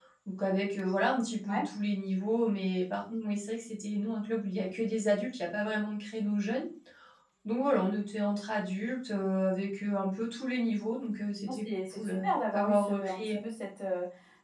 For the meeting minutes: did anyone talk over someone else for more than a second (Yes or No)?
Yes